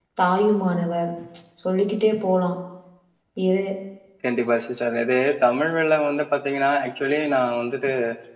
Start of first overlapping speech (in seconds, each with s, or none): none